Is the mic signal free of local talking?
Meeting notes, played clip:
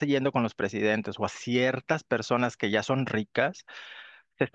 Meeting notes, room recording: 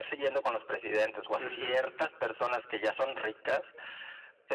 No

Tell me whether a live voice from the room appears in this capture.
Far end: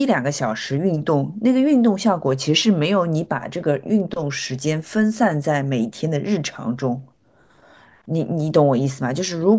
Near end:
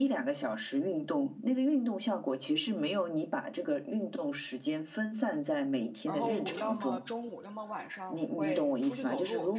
Yes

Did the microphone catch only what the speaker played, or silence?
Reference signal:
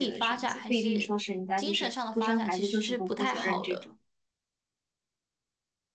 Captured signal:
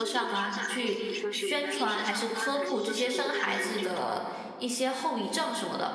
No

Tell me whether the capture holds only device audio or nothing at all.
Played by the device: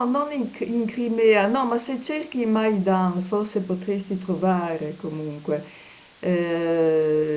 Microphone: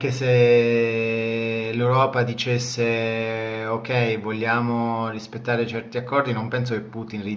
No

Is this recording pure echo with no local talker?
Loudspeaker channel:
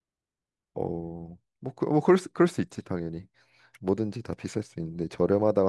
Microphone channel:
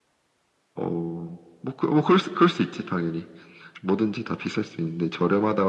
Yes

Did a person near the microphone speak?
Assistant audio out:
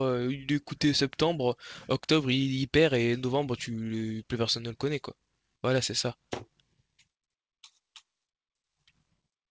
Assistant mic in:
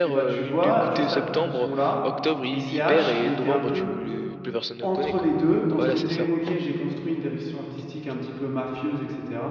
Yes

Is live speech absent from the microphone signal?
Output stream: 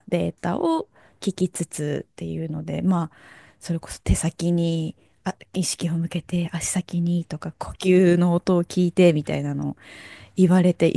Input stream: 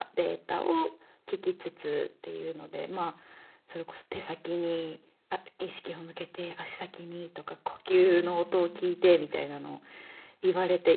No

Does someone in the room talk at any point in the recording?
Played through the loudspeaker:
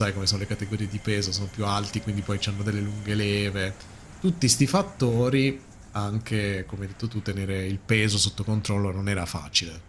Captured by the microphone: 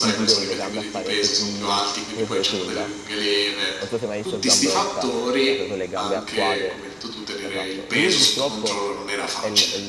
Yes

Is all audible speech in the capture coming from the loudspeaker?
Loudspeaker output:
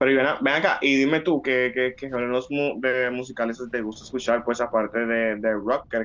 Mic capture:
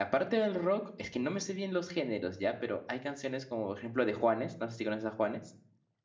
No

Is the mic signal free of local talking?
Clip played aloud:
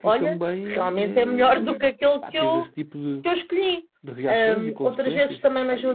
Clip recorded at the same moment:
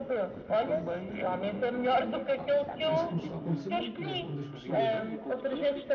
No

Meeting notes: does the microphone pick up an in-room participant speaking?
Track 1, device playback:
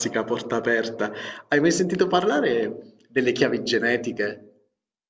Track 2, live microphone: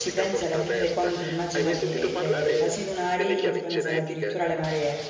Yes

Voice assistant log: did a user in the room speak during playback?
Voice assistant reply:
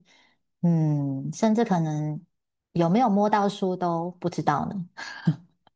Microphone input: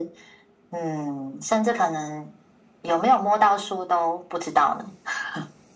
No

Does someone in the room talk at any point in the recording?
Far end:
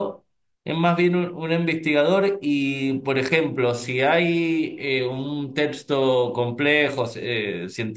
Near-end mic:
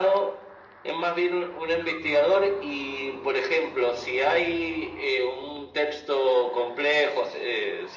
No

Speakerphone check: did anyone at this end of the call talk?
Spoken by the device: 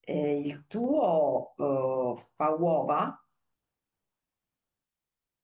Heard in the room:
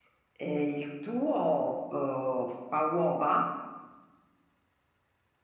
No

